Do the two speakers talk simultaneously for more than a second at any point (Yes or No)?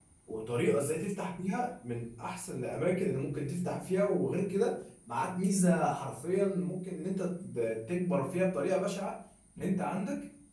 No